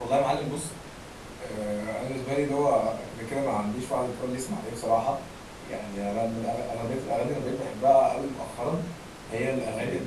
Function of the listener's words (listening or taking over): listening